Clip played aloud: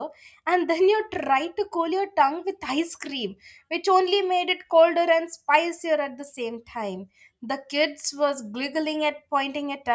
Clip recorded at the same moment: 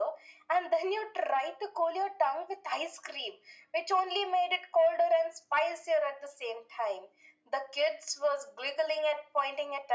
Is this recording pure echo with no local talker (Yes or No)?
Yes